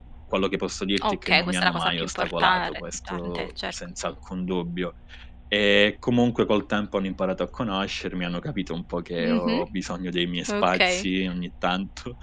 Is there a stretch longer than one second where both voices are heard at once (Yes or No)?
Yes